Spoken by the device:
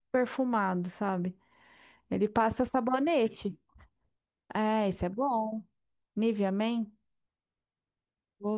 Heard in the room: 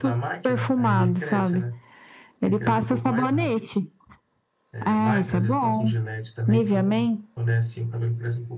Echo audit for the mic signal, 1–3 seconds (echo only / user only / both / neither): both